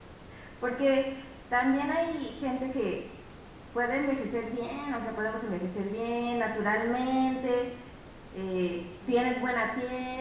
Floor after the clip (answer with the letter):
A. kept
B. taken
A